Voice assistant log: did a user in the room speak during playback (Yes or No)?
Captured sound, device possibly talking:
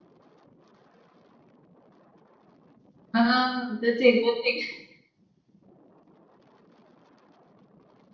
Yes